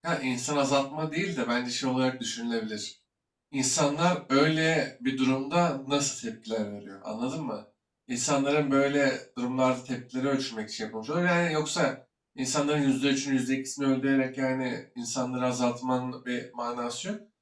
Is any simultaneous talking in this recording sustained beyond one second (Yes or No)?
No